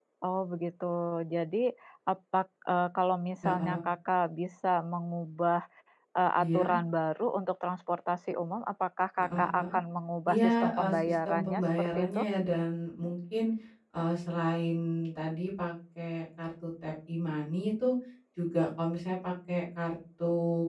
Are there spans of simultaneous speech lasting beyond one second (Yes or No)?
Yes